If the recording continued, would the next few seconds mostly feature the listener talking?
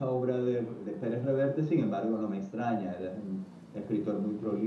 No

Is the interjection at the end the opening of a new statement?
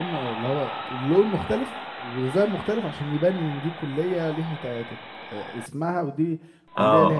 Yes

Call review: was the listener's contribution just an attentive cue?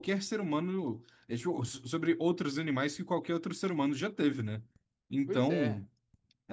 Yes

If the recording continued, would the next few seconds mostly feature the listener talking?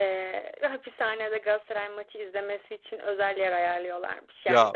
No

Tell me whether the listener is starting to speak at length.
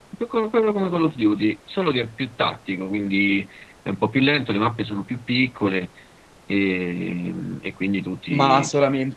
Yes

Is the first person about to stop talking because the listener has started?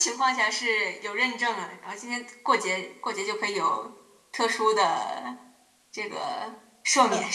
Yes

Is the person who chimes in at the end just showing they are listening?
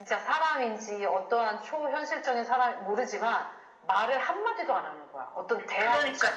No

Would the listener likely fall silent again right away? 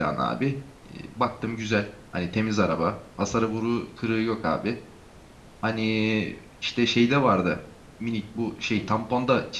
Yes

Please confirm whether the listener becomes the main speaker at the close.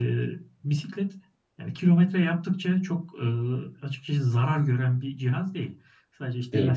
No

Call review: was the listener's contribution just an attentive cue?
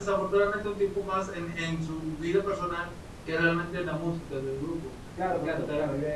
No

